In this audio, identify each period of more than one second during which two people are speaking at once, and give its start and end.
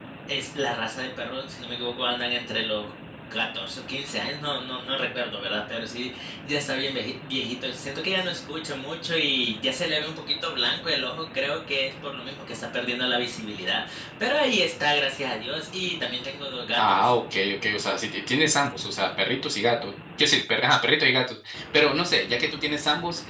none

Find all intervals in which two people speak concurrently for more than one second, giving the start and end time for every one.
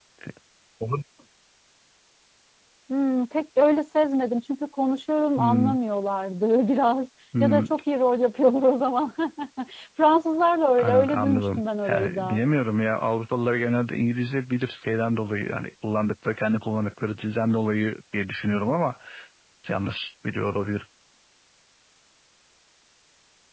10.8-12.4

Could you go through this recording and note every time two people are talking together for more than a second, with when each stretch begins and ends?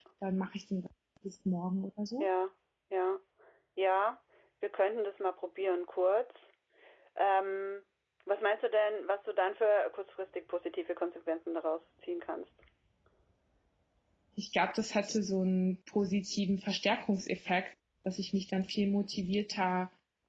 none

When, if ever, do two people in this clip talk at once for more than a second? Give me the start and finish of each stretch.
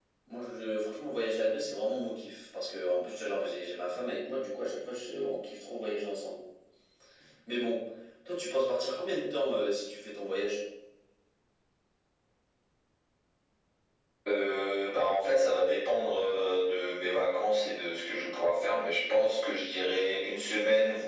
none

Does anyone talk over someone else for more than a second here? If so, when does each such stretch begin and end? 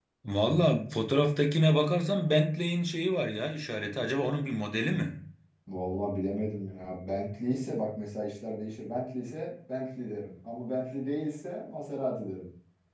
none

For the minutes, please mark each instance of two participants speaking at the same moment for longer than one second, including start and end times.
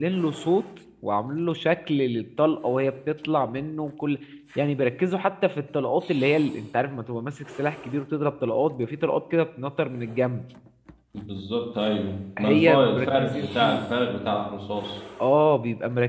12.4-13.8

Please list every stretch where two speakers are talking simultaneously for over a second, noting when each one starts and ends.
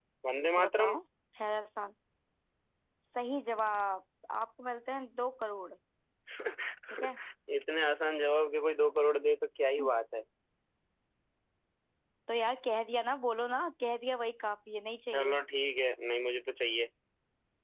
none

